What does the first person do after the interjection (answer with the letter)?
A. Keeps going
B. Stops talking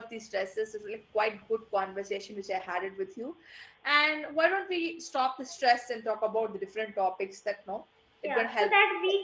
B